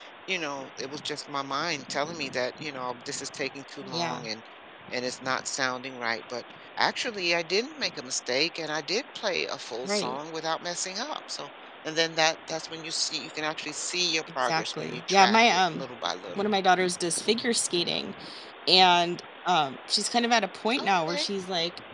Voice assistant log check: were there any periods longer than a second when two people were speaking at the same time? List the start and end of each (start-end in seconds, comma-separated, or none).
14.4-15.8